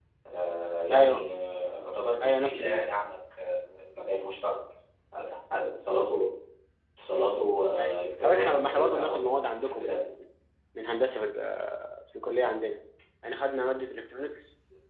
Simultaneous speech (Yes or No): Yes